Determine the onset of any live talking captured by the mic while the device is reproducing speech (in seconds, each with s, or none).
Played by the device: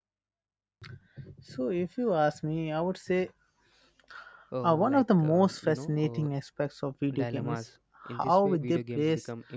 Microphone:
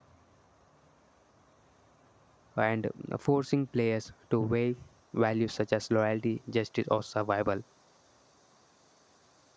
2.6 s